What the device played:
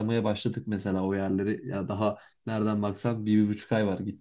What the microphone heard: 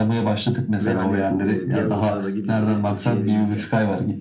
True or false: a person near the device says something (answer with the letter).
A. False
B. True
B